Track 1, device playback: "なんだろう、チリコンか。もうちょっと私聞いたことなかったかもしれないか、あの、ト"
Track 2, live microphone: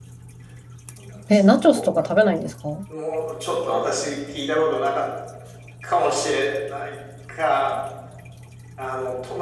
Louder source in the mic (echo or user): user